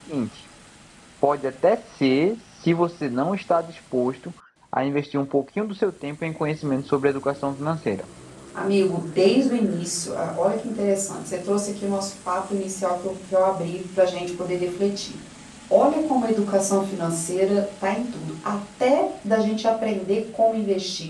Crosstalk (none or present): none